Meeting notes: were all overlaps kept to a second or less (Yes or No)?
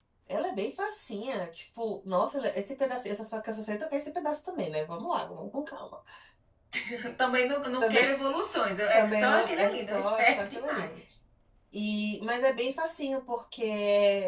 No